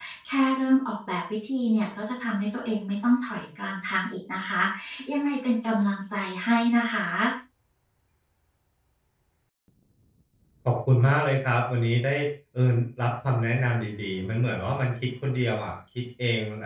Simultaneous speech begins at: none

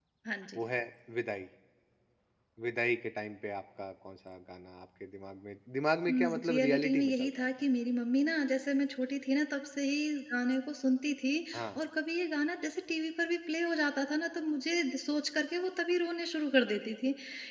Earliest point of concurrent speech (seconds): 6.1 s

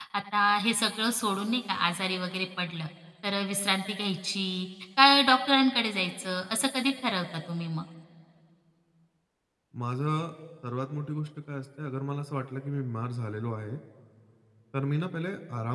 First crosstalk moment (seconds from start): none

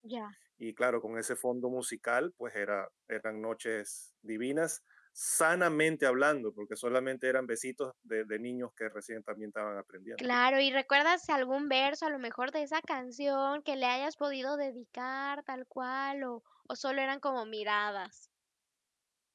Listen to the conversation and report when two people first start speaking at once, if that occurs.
none

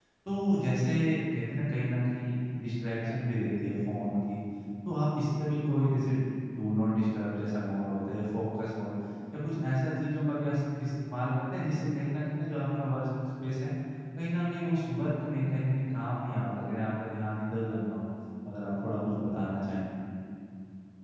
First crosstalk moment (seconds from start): none

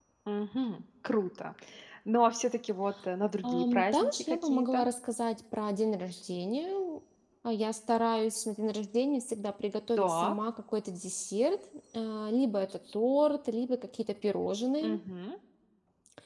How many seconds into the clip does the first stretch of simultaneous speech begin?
3.4 s

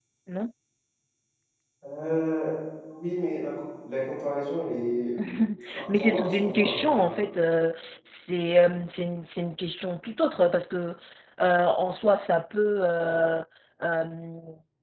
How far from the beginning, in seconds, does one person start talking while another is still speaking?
5.9 s

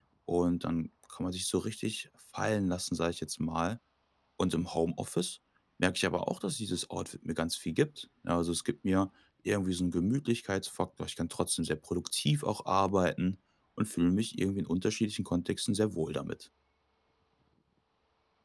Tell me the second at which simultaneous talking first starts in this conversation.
none

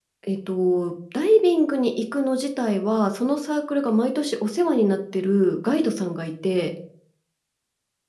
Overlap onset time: none

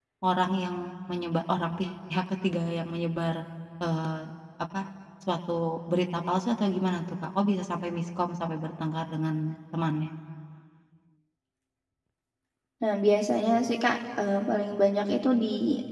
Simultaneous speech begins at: none

